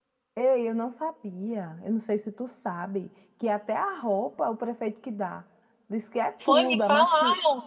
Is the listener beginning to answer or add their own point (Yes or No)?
Yes